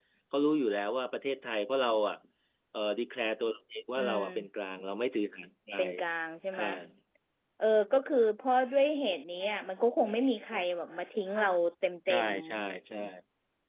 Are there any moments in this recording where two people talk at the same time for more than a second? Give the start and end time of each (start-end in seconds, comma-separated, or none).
none